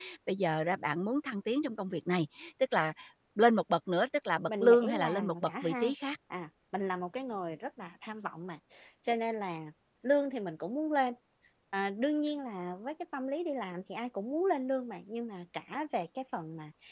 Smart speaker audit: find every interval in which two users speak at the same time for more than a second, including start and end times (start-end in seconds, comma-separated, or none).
4.5-5.9